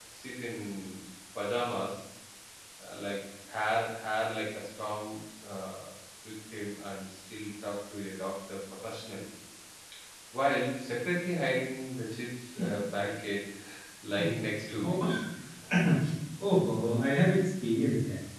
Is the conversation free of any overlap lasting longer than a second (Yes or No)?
Yes